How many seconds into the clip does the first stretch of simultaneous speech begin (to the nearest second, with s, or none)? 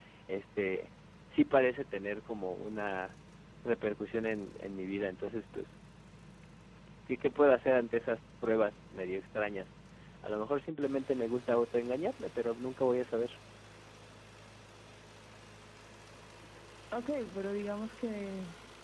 none